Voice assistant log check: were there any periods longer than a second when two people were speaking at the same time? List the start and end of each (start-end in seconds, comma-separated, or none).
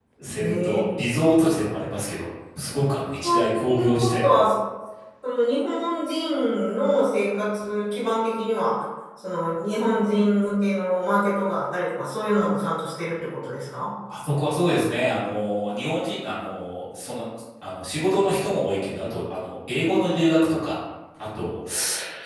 3.2-4.4